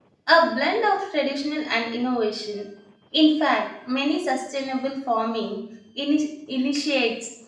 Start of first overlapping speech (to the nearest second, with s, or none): none